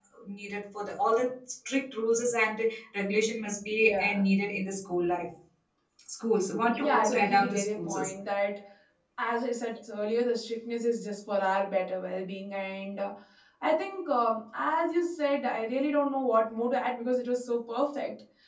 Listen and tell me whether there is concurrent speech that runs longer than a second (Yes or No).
Yes